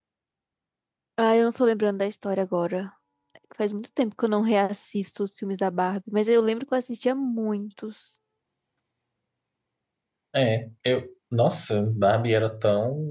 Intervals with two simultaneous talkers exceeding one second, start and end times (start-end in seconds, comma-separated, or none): none